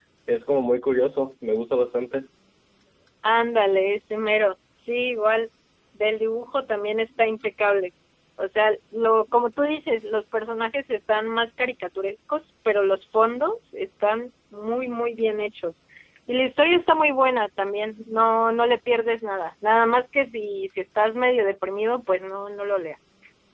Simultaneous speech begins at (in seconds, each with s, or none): none